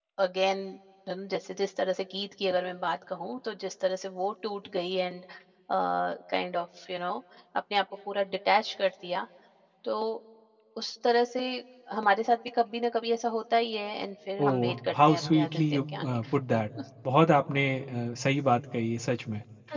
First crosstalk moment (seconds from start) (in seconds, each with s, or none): 14.4 s